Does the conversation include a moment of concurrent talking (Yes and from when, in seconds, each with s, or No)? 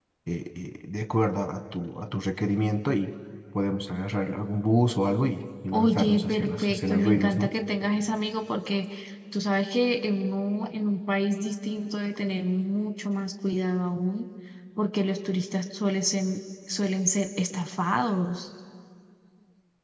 Yes, from 5.7 s